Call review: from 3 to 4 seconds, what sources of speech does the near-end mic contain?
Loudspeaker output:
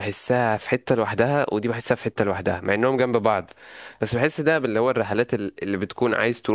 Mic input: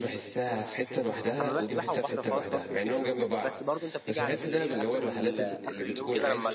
both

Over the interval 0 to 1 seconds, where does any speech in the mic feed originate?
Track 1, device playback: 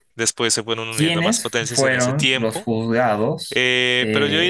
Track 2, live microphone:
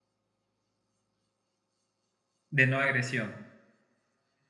neither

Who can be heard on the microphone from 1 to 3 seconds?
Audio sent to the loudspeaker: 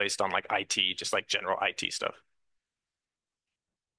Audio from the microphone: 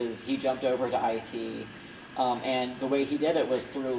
user only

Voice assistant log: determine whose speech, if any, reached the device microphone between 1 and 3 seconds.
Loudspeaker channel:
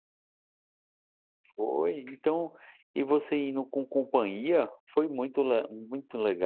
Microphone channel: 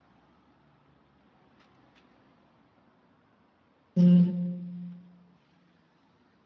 neither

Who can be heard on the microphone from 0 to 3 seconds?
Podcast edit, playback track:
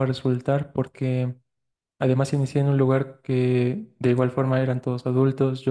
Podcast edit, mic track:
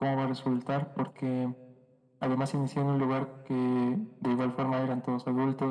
echo only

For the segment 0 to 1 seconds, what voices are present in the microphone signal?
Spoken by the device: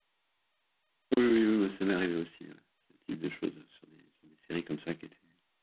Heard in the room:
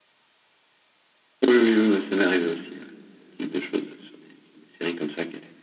neither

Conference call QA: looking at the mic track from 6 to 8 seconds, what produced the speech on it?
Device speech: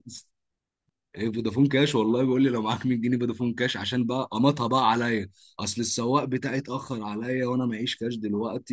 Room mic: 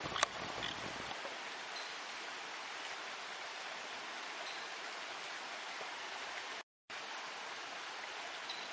neither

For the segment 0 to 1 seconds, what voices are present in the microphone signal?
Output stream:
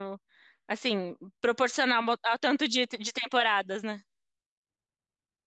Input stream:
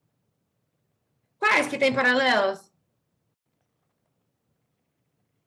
neither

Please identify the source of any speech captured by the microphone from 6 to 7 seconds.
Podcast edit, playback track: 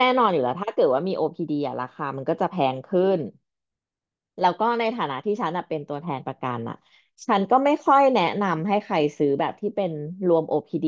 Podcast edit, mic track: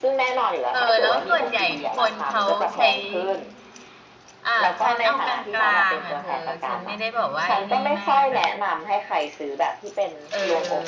both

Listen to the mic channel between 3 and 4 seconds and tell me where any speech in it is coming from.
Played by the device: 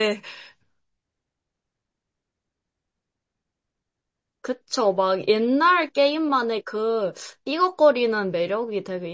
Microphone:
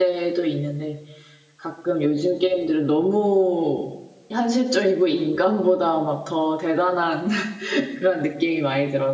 user only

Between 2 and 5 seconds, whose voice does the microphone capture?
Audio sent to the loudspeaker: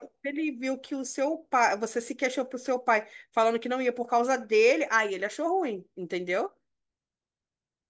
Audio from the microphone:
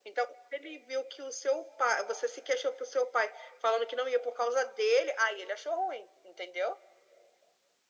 echo only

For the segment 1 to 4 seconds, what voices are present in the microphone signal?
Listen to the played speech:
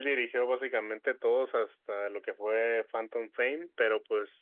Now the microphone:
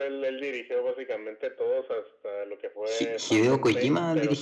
both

